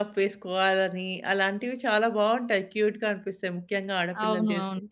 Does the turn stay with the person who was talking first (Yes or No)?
No